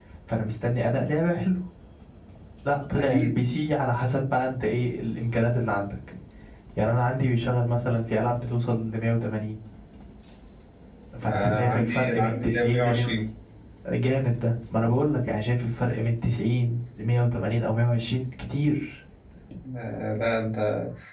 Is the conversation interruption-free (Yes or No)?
No